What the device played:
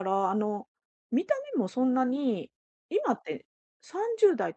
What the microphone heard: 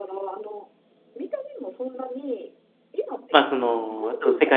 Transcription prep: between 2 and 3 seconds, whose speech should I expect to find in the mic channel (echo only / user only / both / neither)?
echo only